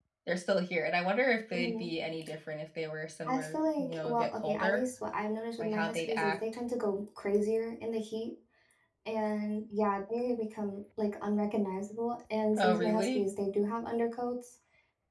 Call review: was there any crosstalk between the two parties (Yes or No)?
Yes